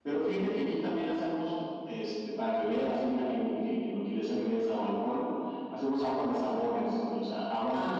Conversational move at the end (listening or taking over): taking over